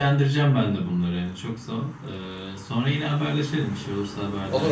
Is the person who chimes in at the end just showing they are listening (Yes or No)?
No